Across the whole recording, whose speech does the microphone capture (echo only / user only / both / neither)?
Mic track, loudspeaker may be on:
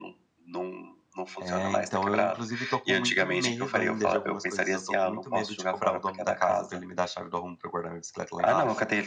both